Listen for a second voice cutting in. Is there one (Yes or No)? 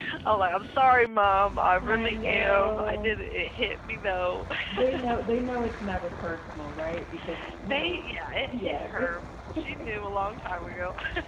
Yes